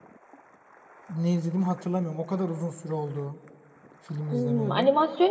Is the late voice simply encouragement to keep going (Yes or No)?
No